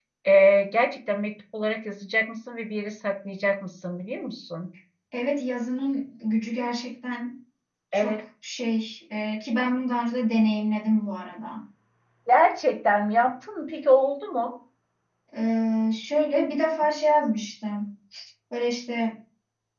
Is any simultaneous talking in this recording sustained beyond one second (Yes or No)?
No